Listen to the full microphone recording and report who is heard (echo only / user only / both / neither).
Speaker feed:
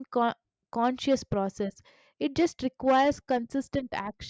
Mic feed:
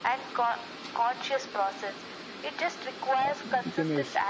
both